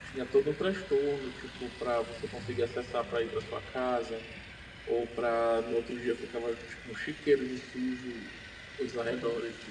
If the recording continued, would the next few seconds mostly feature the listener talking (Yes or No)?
No